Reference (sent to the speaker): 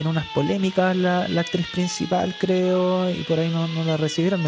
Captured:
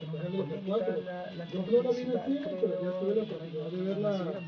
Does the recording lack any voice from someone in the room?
No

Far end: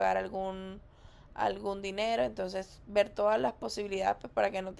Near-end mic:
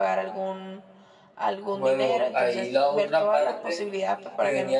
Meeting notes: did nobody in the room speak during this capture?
No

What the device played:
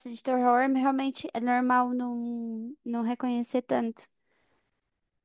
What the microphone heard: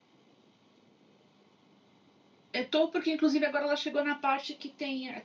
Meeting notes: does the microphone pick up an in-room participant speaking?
Yes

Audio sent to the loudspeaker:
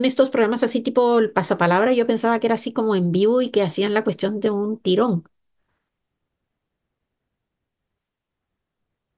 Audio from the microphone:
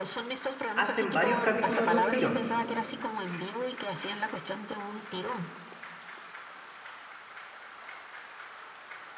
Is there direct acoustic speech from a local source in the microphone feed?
Yes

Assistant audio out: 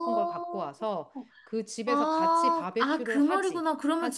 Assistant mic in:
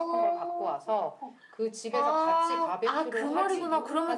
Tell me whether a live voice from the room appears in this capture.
Yes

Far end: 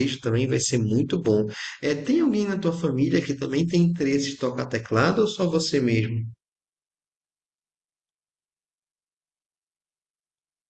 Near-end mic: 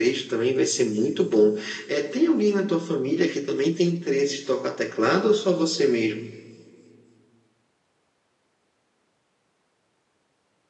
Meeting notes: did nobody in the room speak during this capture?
Yes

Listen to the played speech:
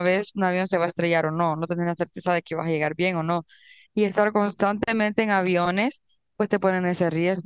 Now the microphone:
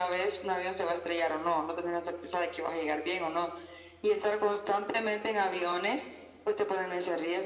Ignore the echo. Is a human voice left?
No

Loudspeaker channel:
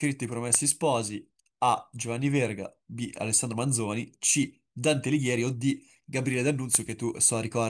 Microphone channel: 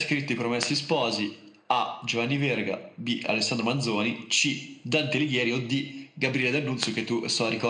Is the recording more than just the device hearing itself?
No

